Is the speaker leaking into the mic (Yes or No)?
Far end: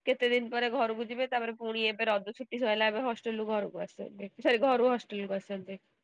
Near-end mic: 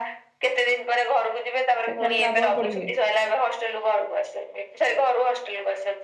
Yes